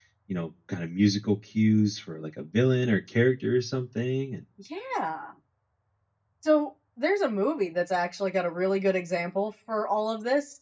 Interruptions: none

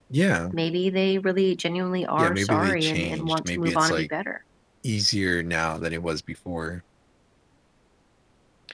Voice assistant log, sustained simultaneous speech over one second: present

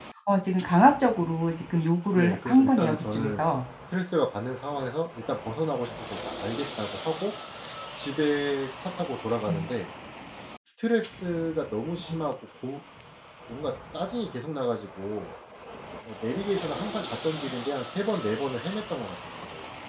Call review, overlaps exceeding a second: present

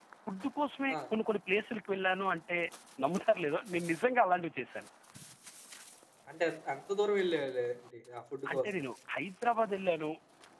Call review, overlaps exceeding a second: none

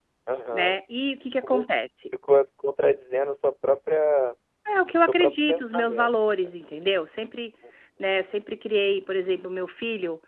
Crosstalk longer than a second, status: present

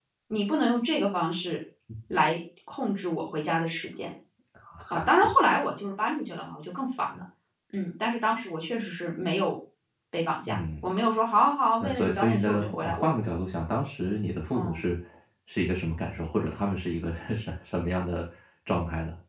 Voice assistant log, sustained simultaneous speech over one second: present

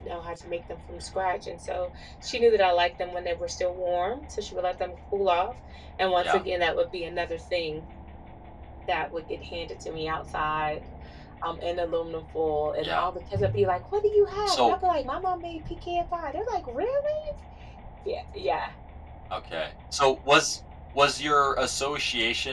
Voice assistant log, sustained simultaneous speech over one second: none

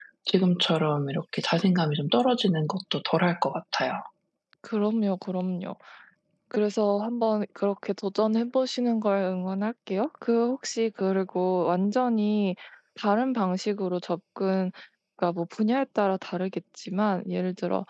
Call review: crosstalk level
none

